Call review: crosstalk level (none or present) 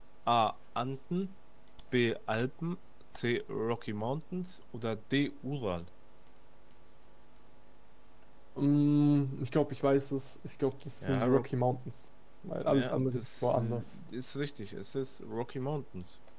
present